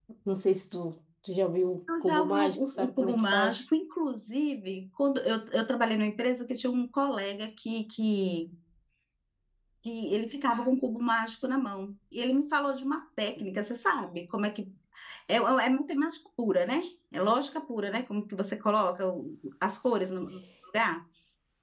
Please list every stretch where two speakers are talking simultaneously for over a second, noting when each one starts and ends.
2.0-3.6

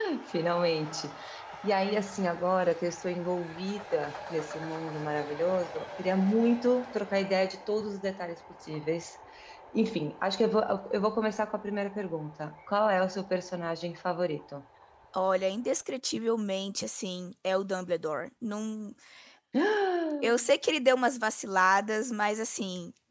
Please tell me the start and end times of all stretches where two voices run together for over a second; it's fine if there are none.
none

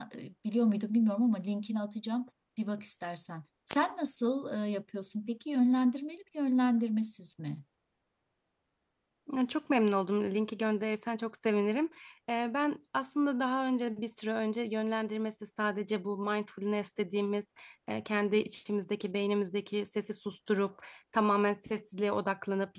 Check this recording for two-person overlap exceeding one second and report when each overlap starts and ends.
none

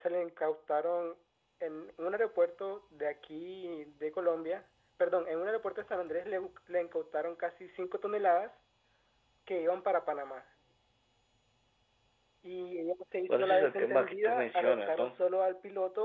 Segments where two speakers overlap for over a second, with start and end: 13.3-15.2

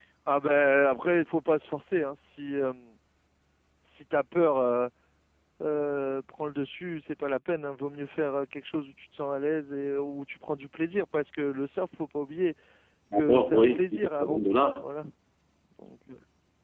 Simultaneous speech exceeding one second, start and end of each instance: 13.1-14.8

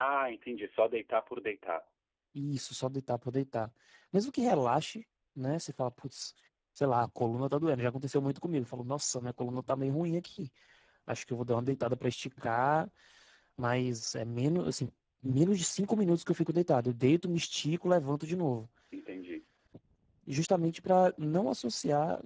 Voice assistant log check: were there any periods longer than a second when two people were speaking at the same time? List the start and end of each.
none

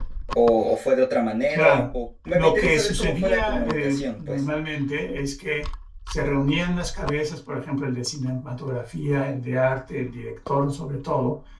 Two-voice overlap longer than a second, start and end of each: 2.3-4.4

